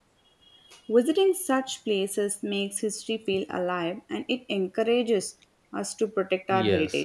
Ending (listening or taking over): taking over